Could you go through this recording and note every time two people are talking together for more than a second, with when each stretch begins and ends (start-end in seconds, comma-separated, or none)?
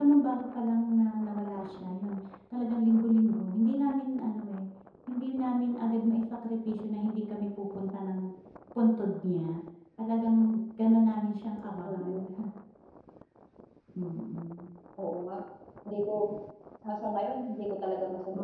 none